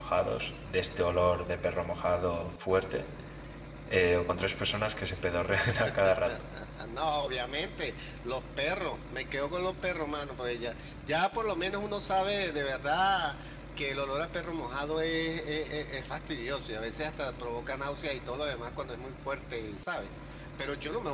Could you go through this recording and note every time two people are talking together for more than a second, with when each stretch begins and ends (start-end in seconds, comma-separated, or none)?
none